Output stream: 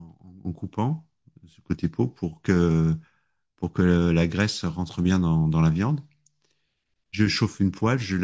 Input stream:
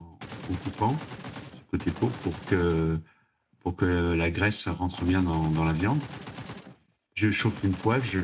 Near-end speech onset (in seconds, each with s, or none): none